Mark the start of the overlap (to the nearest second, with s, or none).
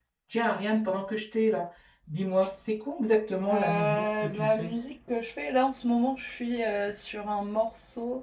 3 s